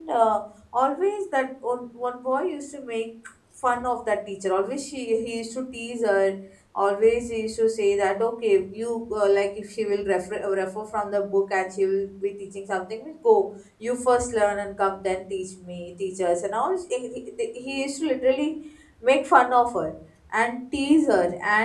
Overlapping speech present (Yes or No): No